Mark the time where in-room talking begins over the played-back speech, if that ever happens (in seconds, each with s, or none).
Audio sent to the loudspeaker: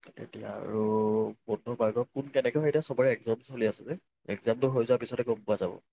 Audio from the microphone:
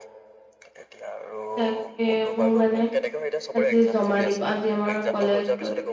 1.6 s